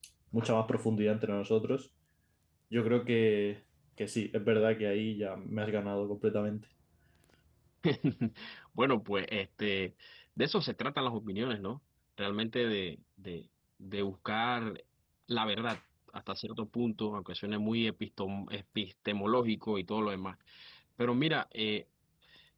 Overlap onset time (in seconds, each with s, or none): none